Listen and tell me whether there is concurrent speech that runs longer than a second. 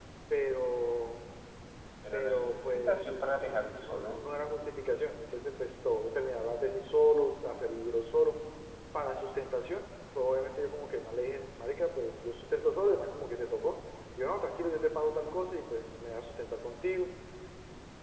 Yes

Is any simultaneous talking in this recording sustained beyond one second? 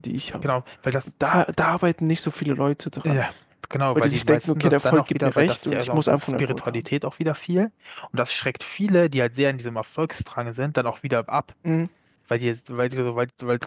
Yes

